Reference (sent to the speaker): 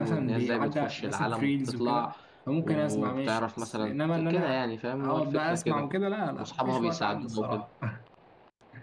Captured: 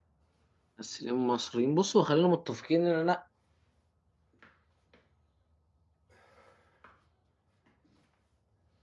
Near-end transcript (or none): ممثلين مصريين بصوا خلينا متفقين ان انا